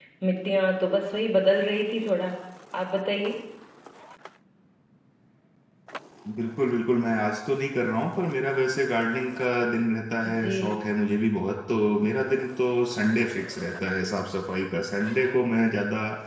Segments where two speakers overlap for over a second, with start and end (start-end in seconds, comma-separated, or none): none